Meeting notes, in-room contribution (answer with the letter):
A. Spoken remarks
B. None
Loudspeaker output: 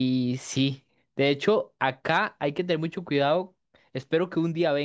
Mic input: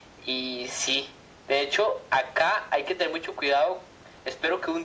B